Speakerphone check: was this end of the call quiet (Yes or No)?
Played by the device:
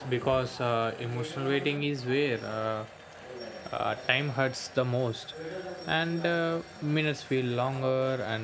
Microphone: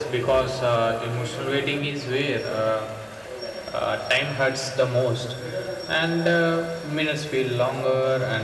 Yes